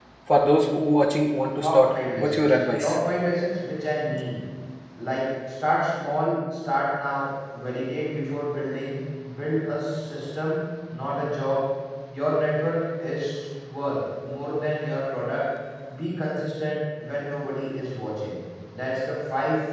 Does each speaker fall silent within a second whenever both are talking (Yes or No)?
No